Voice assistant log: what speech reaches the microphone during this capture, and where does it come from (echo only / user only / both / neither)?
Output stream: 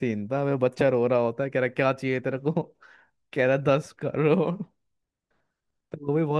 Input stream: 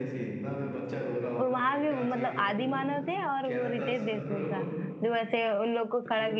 both